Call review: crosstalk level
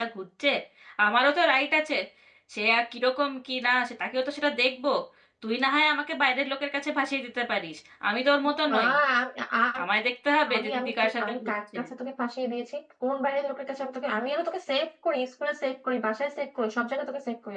present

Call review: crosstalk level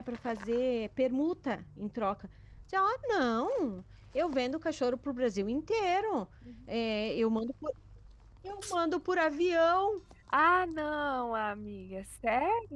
none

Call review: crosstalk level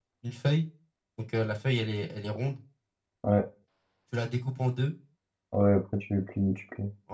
none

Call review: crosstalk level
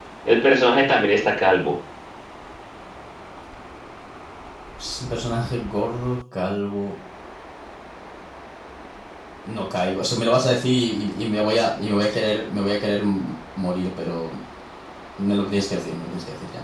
none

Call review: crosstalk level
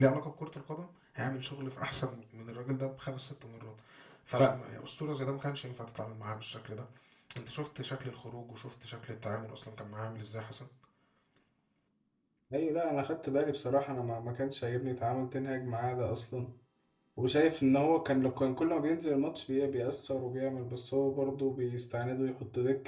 none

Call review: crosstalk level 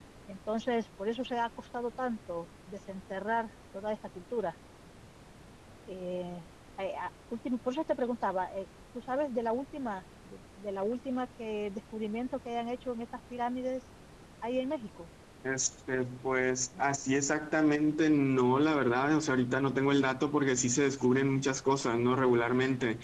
none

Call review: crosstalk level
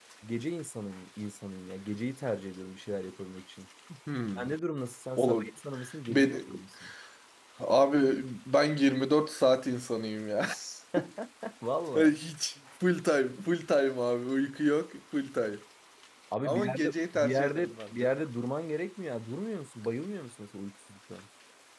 present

